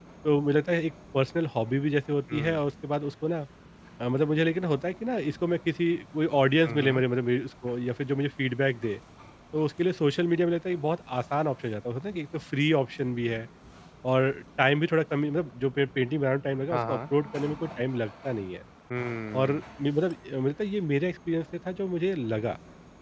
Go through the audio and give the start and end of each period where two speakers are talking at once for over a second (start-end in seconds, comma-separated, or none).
none